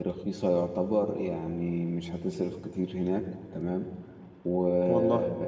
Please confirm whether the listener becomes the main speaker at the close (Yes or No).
No